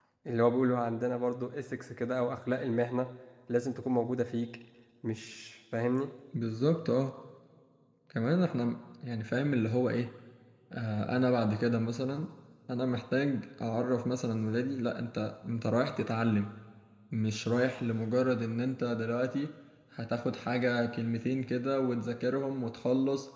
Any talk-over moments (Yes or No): No